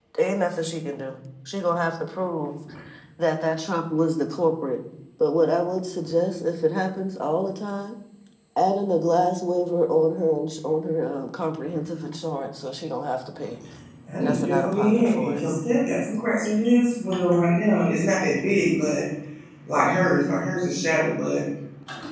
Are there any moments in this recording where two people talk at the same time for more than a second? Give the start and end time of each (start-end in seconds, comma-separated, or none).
14.2-15.4